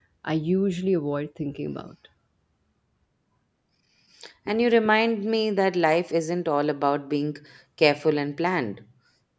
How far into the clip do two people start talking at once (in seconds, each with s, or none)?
none